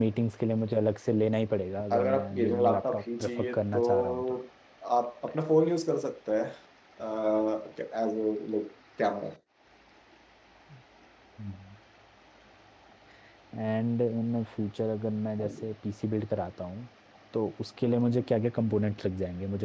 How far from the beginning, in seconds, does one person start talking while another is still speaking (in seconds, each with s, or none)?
1.9 s